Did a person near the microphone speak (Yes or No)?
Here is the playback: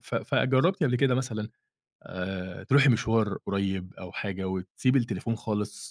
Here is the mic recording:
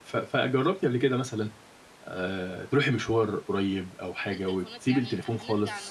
Yes